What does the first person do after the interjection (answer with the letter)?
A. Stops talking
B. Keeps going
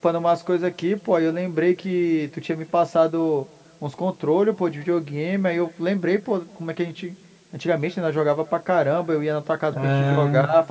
B